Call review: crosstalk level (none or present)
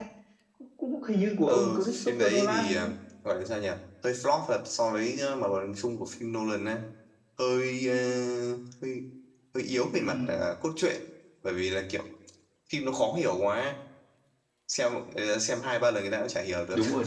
present